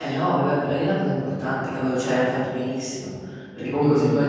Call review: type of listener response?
listening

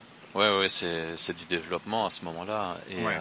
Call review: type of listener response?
taking over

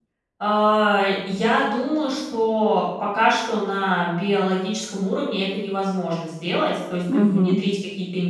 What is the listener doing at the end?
listening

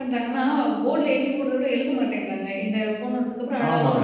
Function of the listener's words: taking over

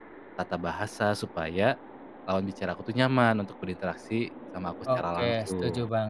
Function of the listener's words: taking over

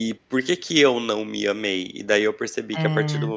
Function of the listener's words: listening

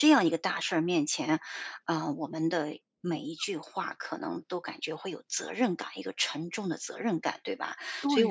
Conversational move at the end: taking over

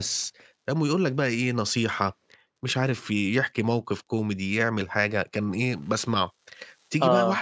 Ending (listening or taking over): listening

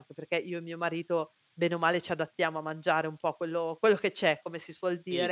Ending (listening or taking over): taking over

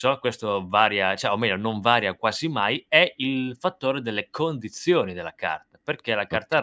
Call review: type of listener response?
listening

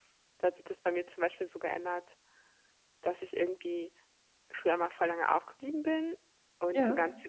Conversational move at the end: listening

